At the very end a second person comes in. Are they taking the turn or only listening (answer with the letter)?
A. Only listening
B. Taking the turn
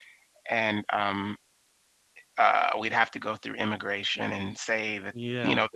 A